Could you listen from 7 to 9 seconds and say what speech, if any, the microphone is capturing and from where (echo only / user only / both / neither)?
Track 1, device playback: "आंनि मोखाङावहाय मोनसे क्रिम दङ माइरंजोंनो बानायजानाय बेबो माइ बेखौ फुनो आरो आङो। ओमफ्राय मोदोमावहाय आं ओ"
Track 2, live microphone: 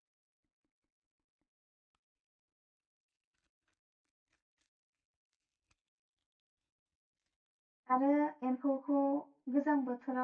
user only